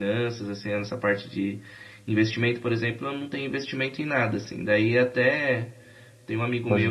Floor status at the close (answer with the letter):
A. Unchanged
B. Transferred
A